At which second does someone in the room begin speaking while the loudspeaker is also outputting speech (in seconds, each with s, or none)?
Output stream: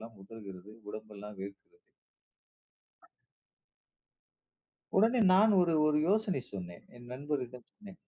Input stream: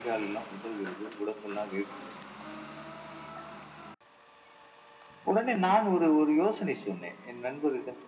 none